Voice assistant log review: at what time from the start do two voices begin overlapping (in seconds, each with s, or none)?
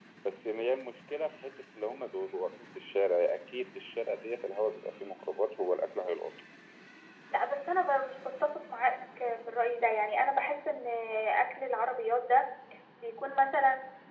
none